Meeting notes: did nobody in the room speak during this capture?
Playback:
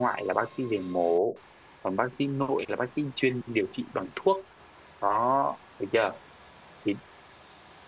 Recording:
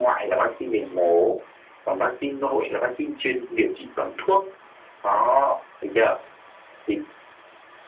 Yes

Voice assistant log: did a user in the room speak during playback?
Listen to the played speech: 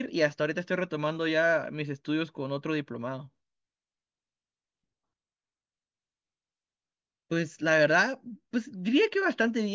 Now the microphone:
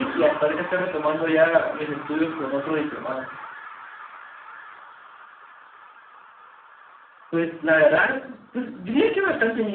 No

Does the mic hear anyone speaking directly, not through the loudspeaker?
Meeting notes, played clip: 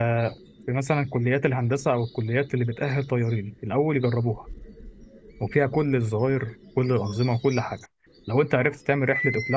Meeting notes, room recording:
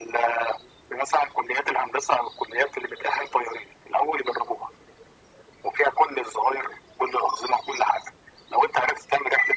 No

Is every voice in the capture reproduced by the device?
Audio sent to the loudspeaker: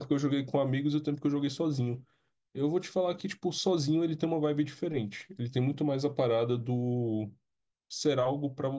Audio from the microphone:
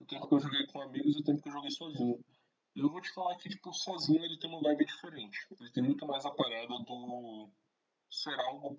Yes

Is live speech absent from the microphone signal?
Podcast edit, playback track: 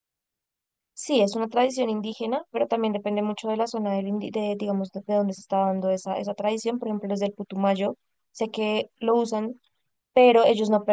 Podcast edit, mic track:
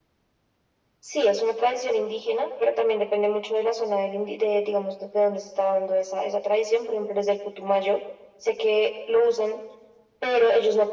Yes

